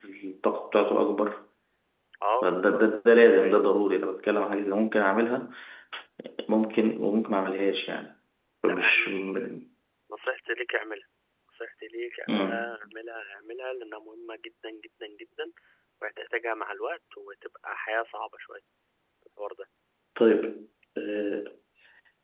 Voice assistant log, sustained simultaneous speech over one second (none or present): none